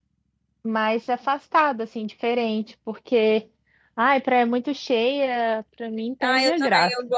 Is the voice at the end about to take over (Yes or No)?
Yes